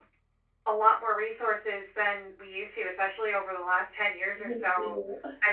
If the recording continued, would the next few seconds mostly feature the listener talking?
No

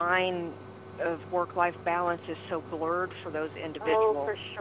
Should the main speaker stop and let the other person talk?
Yes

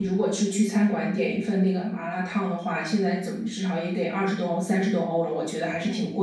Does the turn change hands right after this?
Yes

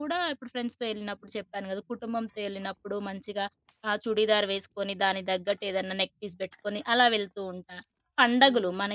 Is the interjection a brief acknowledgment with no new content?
Yes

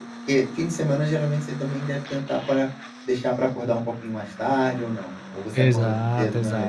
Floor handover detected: Yes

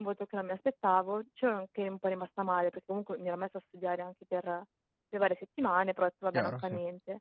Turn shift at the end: No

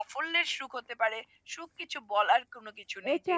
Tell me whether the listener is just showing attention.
No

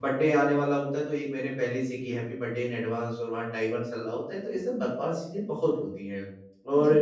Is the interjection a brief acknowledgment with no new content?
Yes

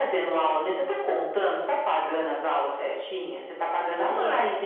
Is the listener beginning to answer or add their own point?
No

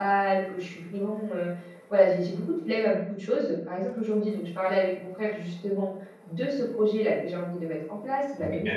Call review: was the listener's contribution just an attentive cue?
Yes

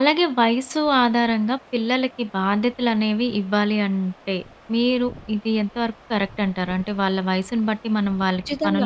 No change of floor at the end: No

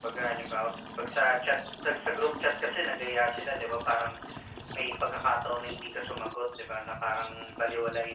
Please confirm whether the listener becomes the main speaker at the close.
No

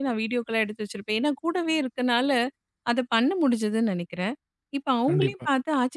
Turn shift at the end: No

